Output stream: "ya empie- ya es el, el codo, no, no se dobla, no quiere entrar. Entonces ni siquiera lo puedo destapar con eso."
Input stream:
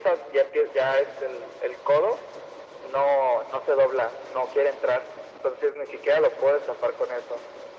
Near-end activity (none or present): none